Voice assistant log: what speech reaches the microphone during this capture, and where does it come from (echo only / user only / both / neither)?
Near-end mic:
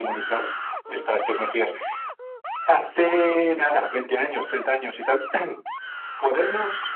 echo only